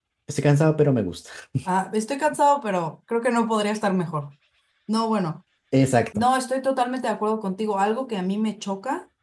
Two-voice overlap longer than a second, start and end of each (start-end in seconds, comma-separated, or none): none